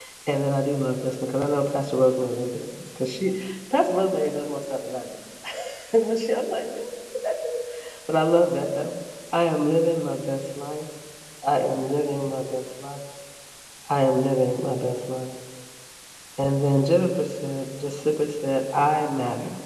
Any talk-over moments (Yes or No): No